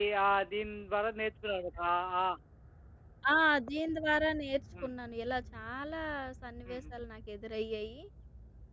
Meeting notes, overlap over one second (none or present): none